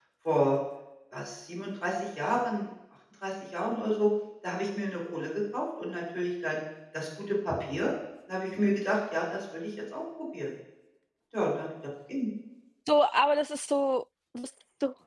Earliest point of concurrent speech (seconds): none

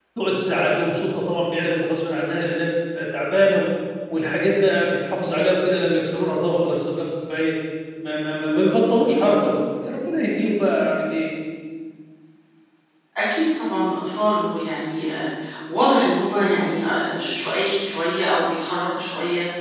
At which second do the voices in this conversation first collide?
none

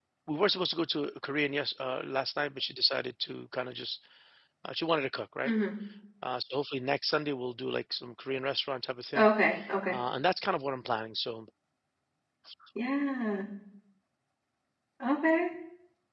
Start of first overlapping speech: none

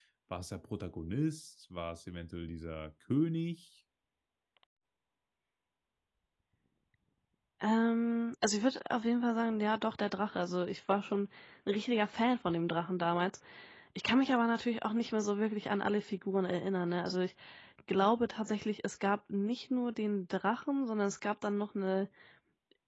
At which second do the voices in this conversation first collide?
none

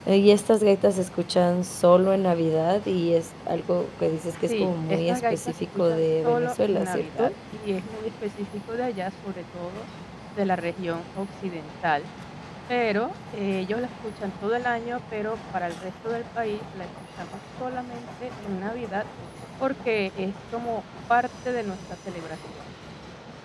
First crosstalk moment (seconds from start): 4 s

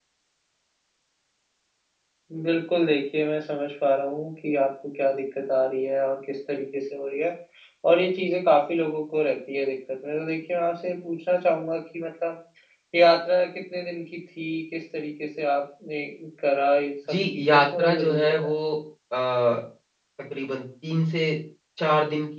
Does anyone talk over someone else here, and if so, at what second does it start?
17 s

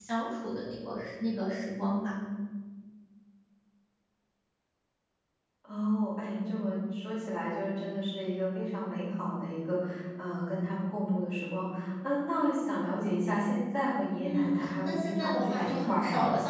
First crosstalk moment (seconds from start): 14 s

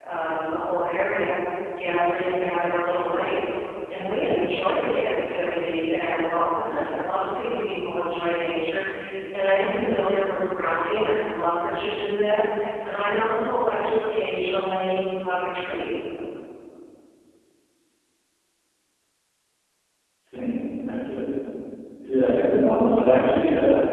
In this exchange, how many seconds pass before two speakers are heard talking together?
none

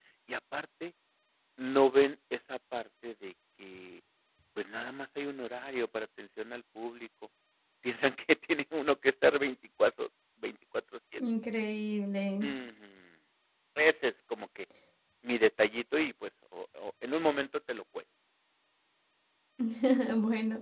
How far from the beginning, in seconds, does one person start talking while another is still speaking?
none

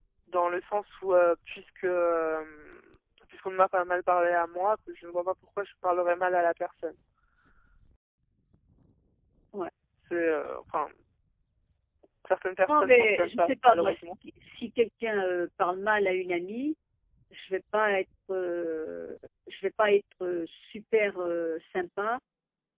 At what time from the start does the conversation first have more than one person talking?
13 s

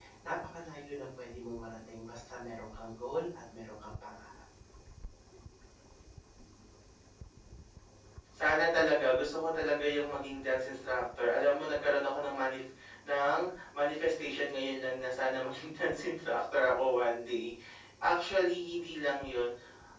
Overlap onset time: none

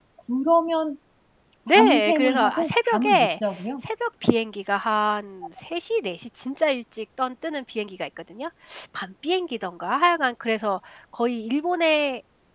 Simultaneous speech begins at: 2 s

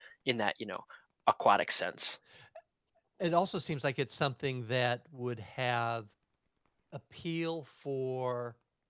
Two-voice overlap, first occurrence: none

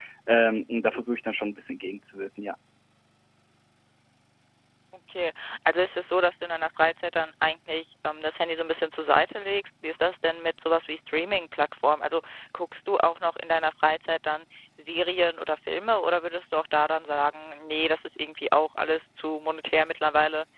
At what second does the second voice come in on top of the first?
none

